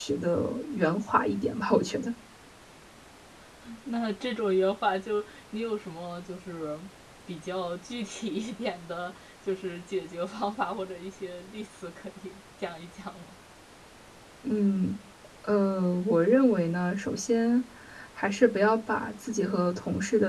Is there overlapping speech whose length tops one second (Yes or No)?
No